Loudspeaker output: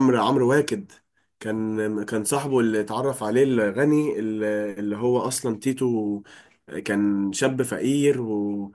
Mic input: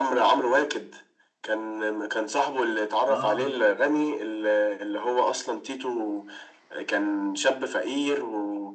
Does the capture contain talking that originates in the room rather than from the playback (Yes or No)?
Yes